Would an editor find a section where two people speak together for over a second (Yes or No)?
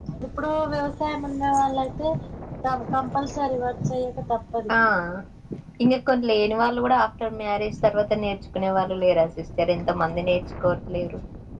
No